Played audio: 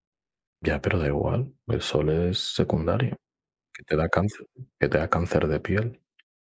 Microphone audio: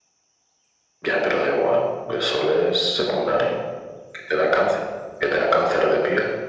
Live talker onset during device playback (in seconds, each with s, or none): none